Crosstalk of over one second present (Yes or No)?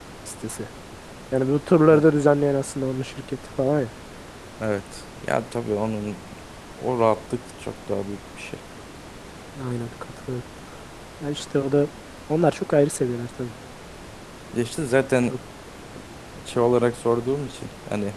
No